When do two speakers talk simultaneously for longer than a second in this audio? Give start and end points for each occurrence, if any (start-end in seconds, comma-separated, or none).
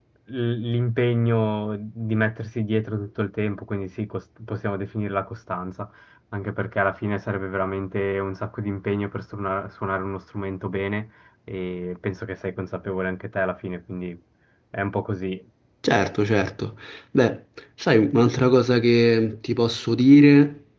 none